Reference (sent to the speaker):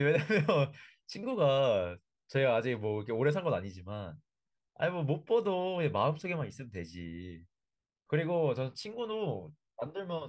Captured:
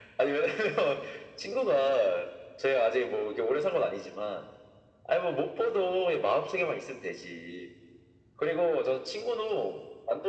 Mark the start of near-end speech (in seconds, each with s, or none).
none